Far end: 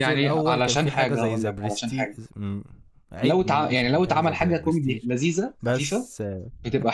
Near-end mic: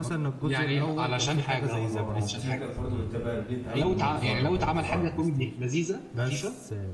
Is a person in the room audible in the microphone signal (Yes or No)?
Yes